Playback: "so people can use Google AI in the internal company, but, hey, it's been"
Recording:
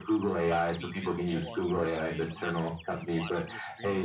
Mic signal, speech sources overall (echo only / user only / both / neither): both